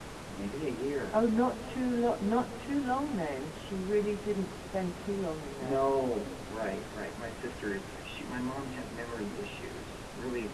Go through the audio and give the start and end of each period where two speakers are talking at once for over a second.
none

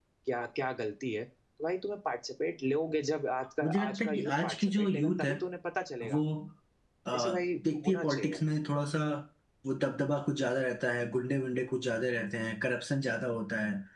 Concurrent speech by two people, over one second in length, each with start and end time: 3.6-5.3, 7.2-8.4

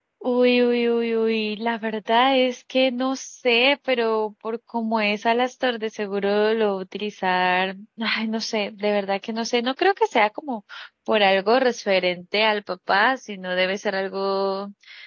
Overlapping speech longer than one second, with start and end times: none

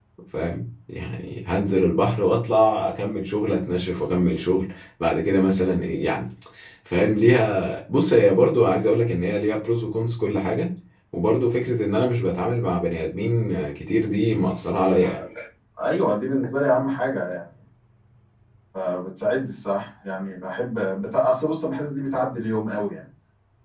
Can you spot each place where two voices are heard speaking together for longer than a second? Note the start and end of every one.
none

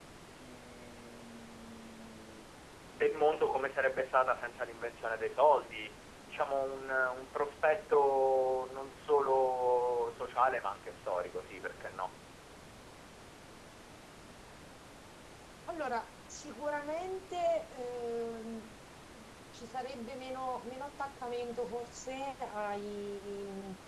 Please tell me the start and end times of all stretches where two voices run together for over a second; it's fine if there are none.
none

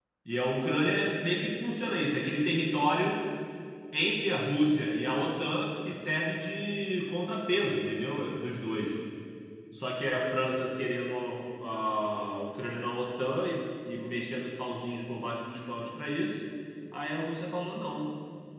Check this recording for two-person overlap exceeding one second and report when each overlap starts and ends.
none

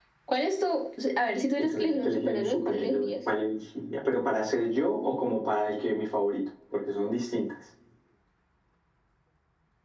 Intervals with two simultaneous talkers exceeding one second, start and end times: 1.6-3.1

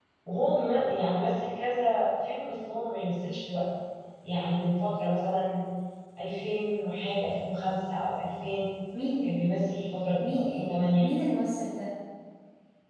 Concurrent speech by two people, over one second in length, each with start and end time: none

